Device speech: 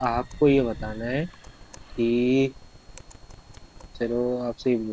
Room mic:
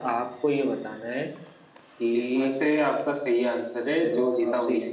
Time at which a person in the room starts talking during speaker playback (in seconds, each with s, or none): 2.2 s